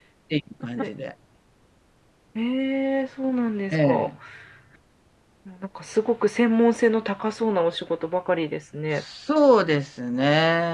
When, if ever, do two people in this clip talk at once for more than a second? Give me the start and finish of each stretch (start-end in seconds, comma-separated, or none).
none